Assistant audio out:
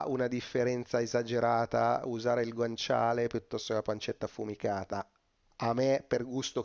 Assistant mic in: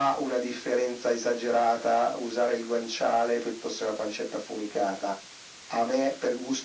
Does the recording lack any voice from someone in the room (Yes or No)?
Yes